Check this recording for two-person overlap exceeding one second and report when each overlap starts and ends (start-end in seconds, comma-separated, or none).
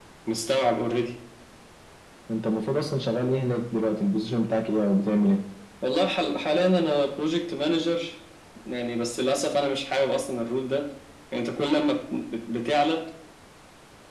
none